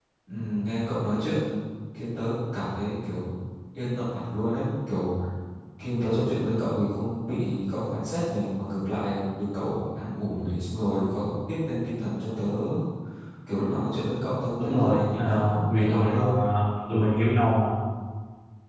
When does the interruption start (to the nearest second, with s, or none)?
15 s